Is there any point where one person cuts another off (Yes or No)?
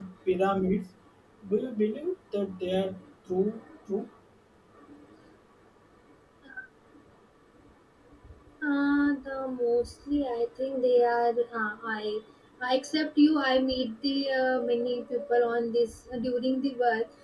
No